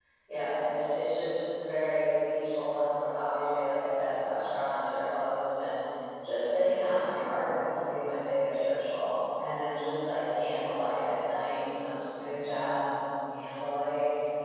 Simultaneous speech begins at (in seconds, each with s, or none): none